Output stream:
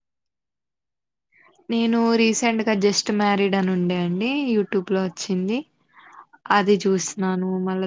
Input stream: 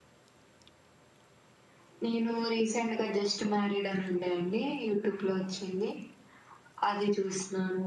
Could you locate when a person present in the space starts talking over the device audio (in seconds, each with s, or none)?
none